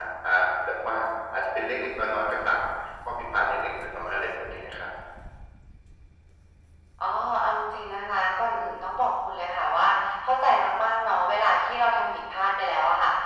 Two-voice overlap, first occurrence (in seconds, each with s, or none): none